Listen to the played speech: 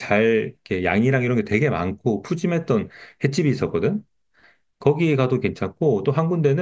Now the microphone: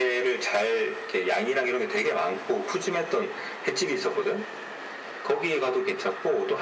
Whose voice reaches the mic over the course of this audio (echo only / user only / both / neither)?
echo only